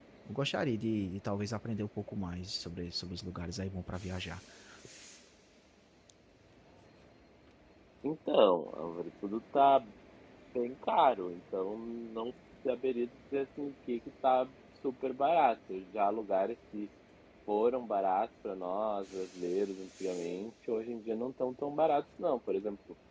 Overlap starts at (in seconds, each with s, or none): none